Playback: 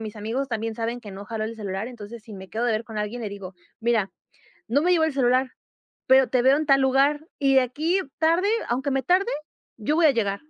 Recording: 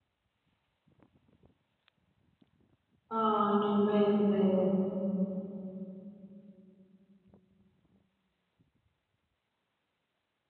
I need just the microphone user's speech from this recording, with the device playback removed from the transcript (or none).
Ay, no inventes.